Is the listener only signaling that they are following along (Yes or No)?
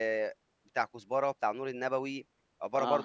Yes